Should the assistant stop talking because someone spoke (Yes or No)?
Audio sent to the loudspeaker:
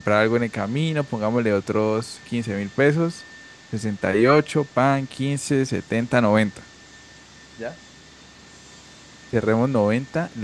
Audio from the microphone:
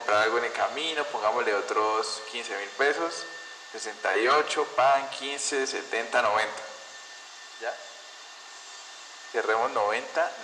No